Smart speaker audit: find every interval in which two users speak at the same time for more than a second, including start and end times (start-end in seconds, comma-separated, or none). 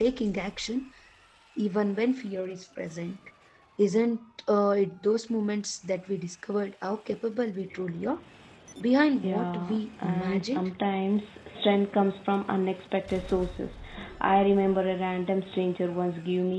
9.2-10.7